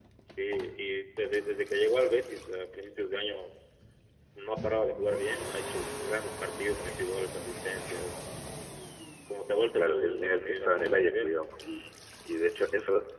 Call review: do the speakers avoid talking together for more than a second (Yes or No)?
No